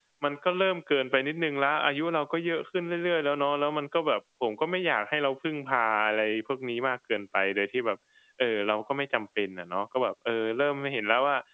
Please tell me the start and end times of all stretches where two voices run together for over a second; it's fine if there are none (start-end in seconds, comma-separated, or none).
none